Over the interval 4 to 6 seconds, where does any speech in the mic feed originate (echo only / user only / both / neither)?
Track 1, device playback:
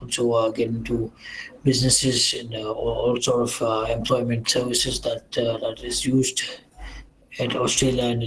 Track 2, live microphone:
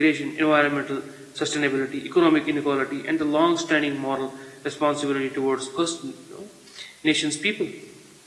user only